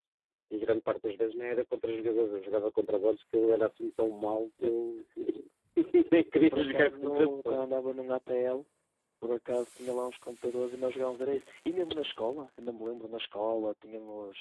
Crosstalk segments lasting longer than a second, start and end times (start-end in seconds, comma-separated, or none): 6.3-7.6